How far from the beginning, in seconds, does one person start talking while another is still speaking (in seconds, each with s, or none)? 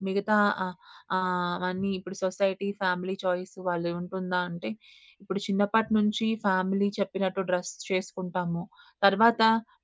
none